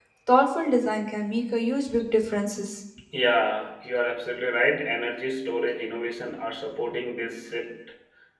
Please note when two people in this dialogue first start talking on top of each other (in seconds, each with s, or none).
none